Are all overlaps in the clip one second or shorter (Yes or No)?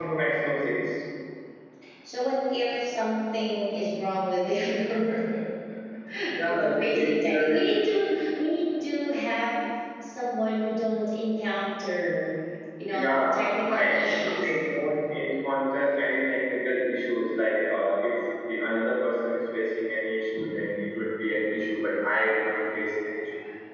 No